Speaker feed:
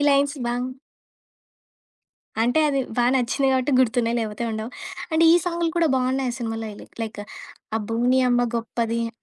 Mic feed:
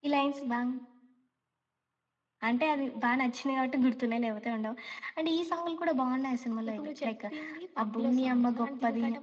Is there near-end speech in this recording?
Yes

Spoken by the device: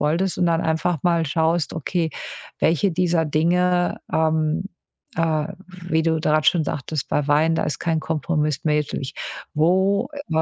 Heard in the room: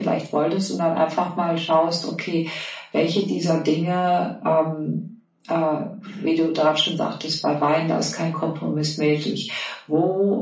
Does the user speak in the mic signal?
No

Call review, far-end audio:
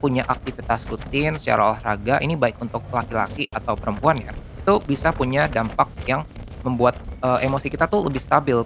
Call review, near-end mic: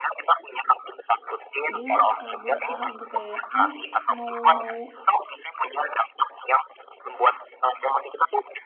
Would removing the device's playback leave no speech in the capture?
No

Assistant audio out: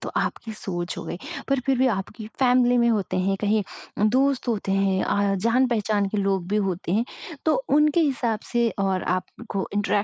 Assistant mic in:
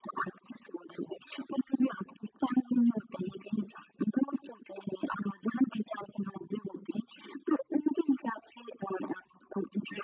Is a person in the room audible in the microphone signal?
No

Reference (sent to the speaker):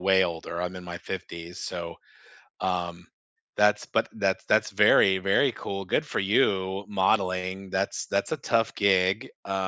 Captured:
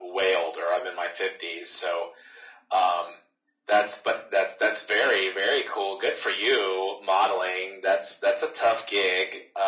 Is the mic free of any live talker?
Yes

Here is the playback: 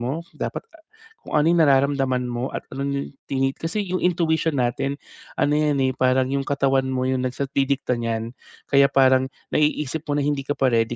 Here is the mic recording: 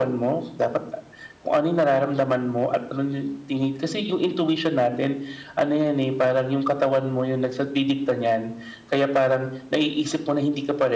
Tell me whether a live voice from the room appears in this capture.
No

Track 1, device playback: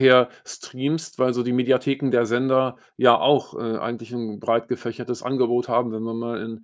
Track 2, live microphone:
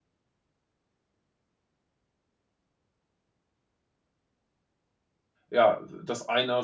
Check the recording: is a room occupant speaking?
Yes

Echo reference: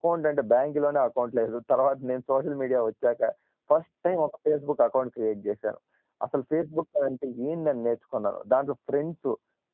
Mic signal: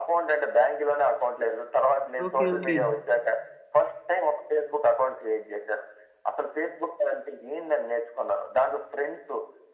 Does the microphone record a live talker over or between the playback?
Yes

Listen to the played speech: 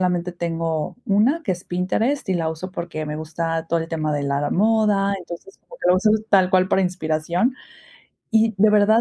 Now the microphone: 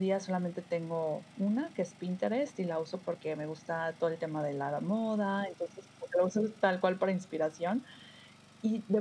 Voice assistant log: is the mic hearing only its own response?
Yes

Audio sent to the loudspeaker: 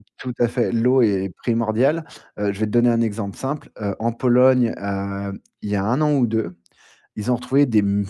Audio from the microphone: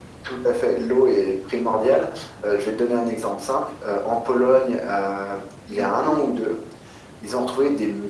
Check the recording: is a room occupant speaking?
Yes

